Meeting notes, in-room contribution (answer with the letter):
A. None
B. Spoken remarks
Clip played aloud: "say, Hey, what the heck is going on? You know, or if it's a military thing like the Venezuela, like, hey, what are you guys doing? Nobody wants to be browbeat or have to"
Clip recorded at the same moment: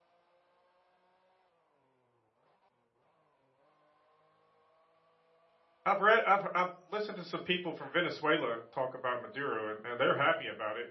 B